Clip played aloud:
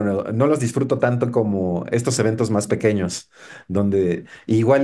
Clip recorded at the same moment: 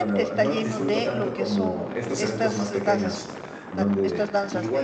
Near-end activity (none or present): present